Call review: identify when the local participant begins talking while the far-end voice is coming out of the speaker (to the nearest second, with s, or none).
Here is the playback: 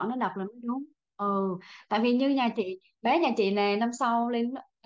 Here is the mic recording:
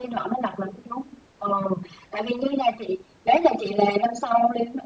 none